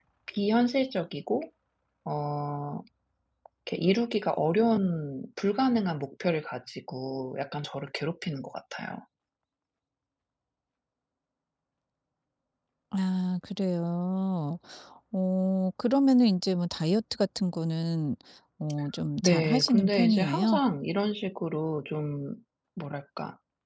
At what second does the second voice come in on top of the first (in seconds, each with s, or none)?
19.2 s